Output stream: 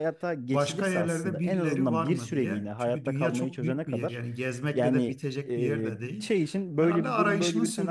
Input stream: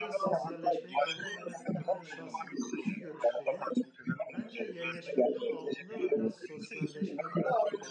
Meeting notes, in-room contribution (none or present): present